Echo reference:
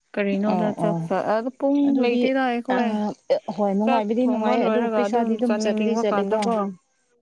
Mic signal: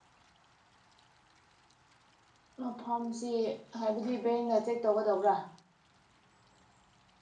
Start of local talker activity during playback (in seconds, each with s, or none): 2.6 s